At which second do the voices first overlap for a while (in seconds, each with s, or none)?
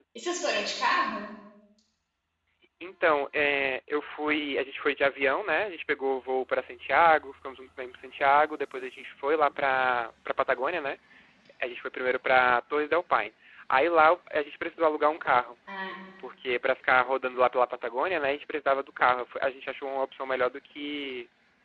none